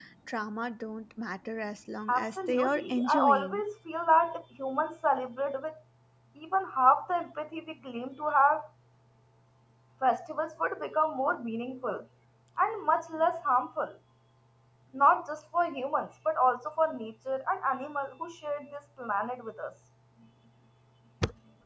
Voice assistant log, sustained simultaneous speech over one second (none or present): present